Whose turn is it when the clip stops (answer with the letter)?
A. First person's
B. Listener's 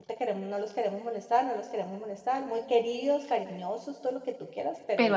A